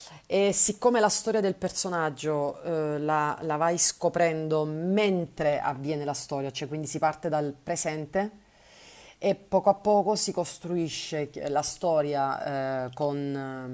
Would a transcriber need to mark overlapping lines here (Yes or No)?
No